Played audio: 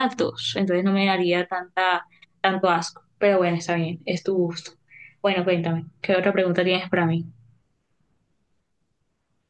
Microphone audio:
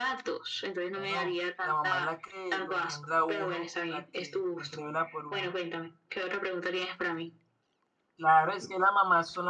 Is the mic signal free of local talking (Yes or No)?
No